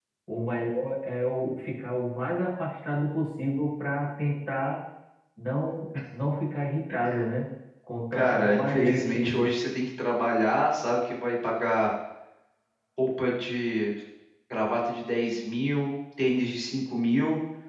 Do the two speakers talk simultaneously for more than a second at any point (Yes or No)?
Yes